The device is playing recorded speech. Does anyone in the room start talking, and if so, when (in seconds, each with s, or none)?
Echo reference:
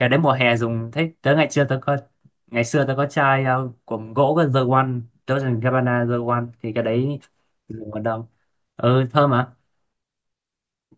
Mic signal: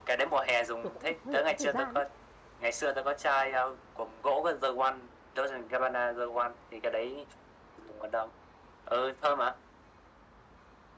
0.8 s